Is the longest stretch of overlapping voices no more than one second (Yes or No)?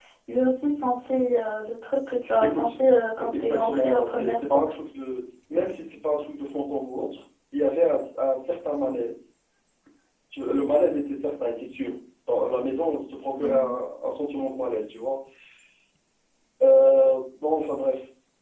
No